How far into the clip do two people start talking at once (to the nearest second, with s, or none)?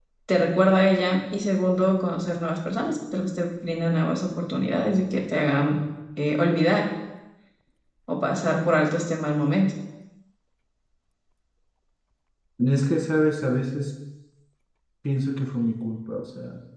none